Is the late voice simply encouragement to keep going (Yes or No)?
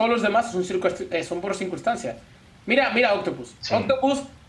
Yes